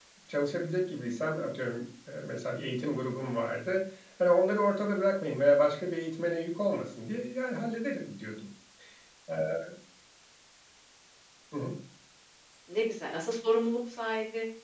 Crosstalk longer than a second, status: none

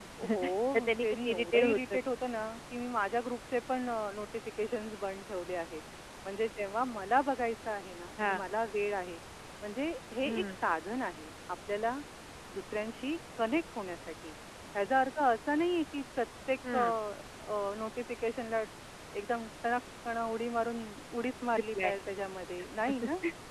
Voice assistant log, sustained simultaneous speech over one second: present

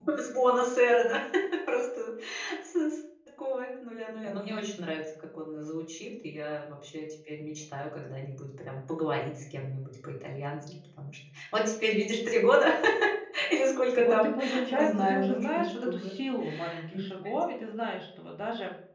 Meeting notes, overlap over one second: present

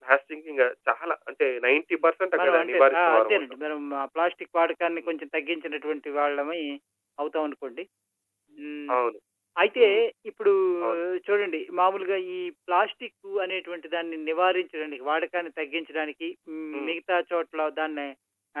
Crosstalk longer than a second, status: present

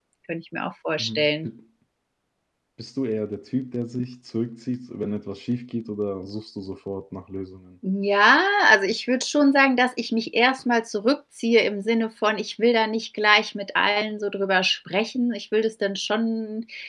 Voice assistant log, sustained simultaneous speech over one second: none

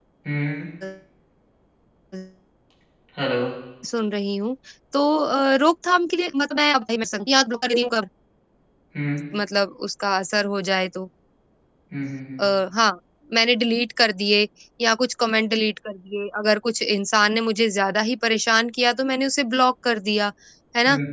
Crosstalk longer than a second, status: none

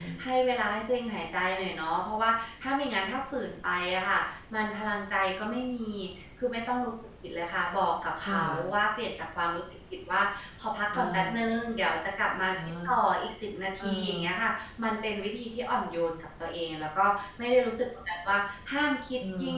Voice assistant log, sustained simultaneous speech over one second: none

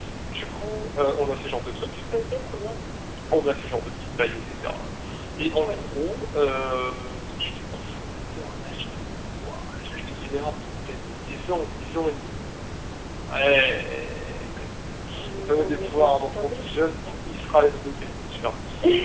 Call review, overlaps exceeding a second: present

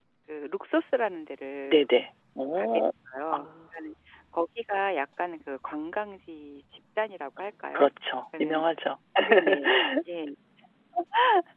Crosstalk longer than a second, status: none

